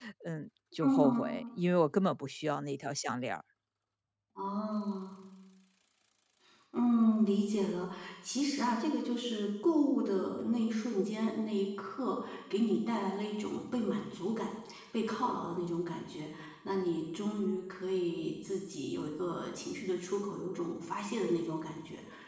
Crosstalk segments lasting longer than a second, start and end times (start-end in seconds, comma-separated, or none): none